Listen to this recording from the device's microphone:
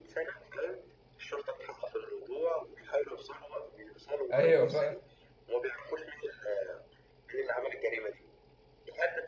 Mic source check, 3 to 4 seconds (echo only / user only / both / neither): echo only